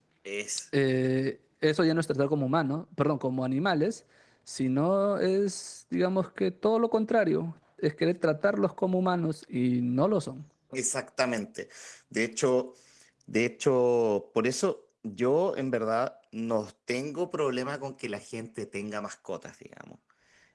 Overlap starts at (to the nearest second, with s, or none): none